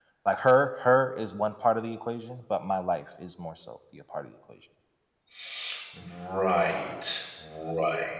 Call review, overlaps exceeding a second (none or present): none